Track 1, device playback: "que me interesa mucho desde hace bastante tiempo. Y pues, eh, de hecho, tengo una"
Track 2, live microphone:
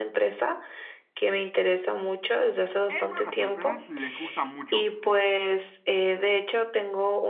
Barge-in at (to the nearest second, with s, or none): 3 s